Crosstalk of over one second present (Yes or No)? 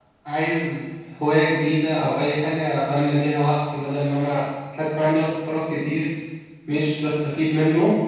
No